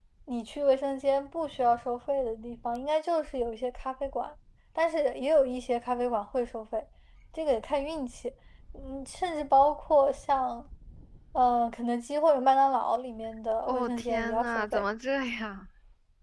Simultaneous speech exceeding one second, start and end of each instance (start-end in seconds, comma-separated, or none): 13.6-14.8